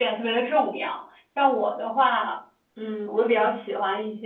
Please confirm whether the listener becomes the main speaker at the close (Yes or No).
No